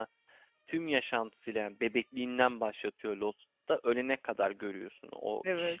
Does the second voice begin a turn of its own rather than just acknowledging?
No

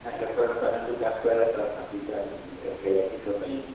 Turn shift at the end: Yes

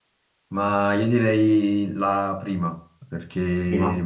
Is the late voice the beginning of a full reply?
No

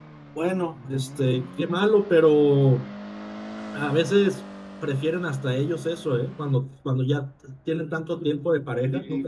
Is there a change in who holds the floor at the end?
Yes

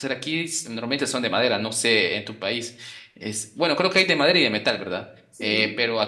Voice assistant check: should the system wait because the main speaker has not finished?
Yes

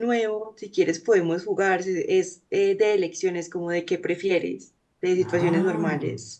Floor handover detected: Yes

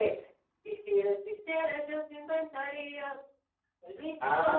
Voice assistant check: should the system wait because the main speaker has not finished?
No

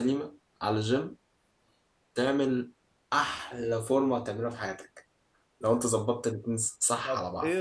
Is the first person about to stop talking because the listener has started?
Yes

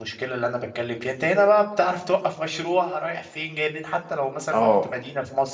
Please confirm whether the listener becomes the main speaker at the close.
No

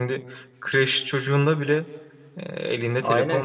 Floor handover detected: Yes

